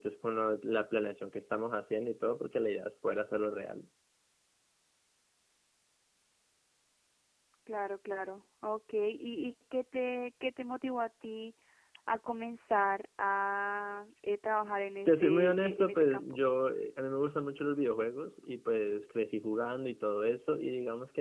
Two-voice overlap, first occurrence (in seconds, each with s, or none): 15.1 s